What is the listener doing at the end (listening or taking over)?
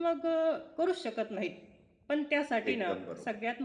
listening